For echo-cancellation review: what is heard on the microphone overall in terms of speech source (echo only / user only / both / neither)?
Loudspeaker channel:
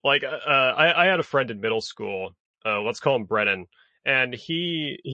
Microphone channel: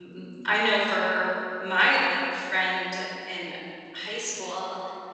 user only